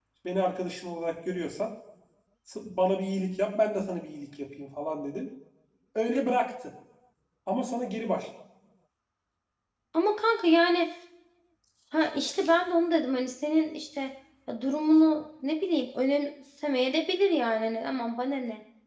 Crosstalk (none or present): none